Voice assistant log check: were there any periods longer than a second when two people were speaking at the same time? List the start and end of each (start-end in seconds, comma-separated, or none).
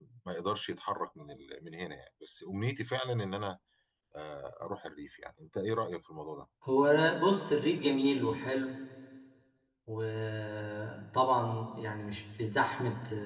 none